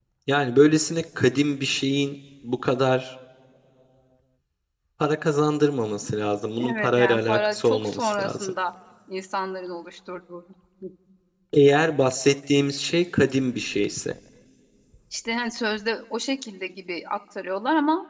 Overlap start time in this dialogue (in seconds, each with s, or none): 6.6 s